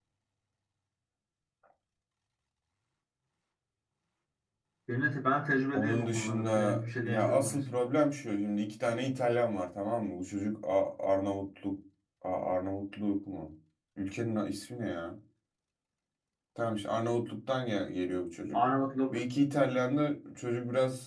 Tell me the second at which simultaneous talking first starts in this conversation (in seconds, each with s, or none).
5.7 s